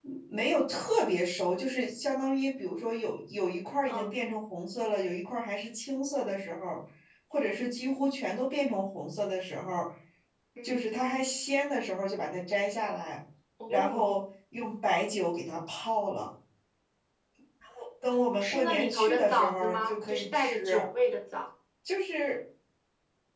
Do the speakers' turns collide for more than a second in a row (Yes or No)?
Yes